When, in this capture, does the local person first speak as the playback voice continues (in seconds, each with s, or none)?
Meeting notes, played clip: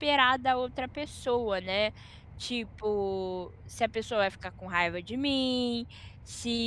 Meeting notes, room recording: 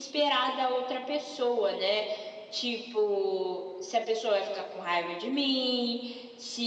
none